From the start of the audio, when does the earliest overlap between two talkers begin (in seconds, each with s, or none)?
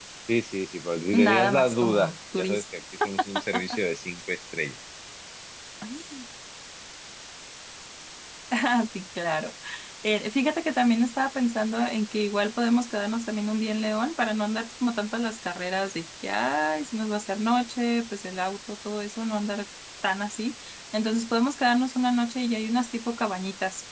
1.1 s